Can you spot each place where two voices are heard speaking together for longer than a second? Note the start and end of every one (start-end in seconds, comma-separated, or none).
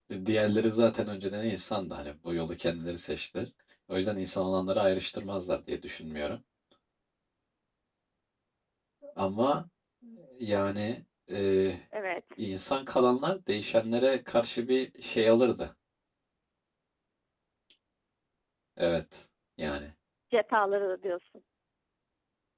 none